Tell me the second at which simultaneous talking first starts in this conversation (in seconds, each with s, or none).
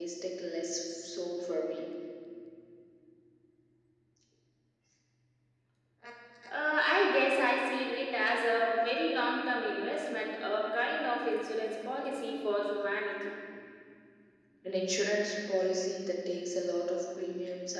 none